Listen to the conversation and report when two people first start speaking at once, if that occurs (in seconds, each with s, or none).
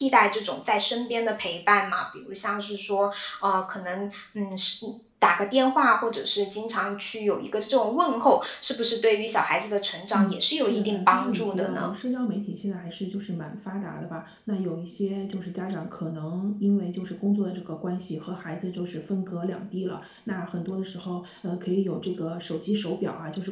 10.1 s